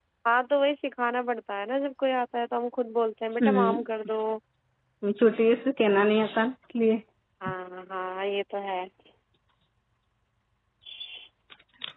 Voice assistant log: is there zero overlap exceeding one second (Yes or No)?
Yes